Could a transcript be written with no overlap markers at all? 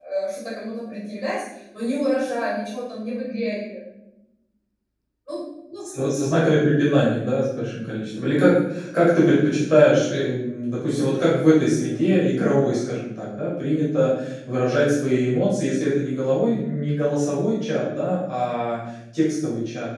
Yes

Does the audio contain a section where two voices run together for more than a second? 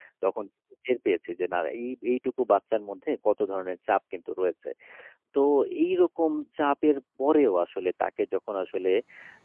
No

